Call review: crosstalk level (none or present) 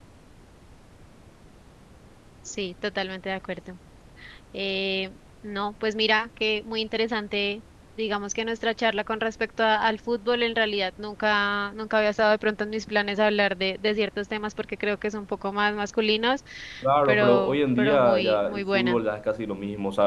present